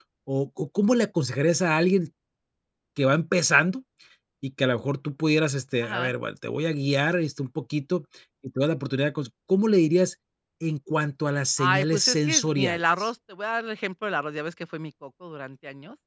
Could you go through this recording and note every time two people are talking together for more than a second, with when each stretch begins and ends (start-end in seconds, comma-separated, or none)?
11.6-13.1